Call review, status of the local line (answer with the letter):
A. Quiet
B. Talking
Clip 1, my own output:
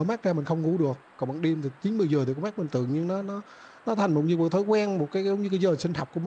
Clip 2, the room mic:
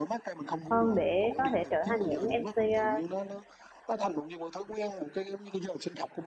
B